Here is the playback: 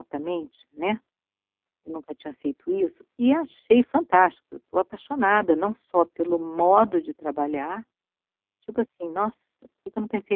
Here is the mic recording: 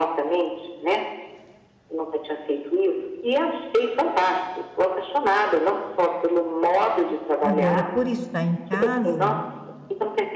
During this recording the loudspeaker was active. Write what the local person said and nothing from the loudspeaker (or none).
Agora, por estar em casa,